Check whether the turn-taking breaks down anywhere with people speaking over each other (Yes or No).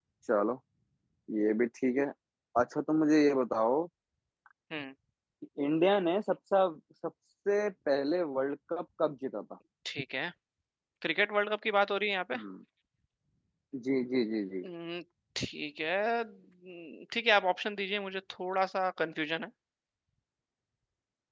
No